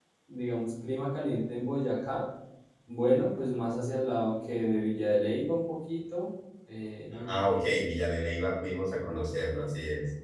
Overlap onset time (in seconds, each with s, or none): none